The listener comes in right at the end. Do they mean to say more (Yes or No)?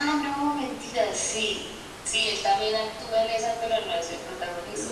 Yes